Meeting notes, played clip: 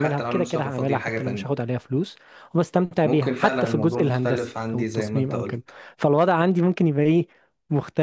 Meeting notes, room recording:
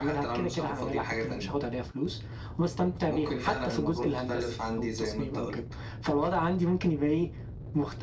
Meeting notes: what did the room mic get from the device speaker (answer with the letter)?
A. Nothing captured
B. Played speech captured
B